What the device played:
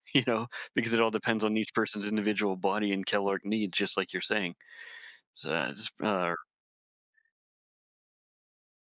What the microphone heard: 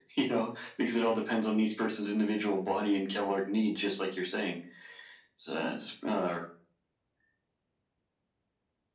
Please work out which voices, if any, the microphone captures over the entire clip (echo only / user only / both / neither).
echo only